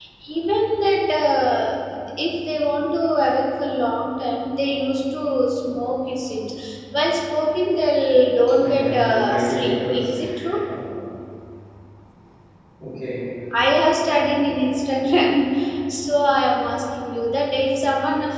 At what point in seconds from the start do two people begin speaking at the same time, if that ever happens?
8.6 s

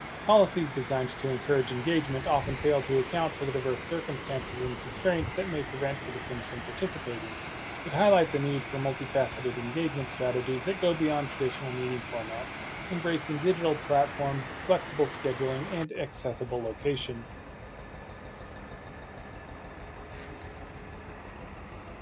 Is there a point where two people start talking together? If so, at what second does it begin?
none

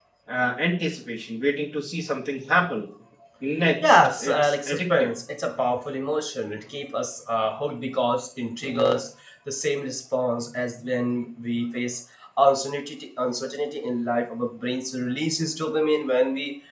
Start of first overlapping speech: 3.8 s

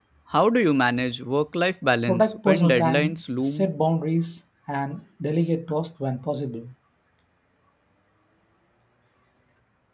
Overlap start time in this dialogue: 2.1 s

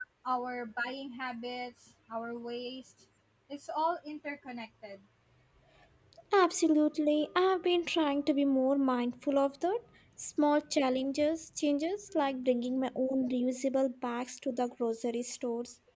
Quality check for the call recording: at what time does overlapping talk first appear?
none

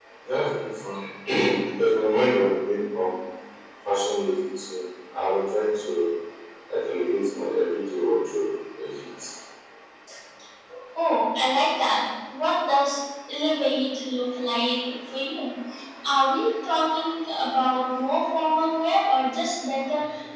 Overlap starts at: none

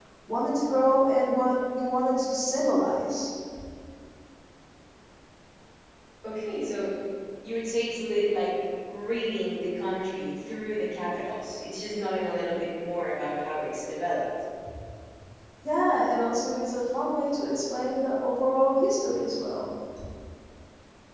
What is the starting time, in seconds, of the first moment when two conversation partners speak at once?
none

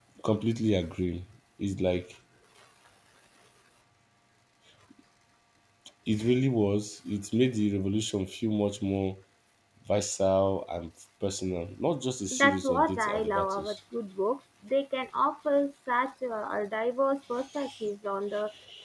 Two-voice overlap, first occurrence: 12.3 s

